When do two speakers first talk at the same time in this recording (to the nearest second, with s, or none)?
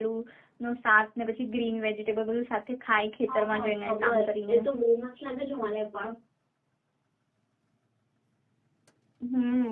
3 s